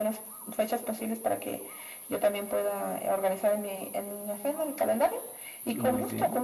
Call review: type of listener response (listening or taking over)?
listening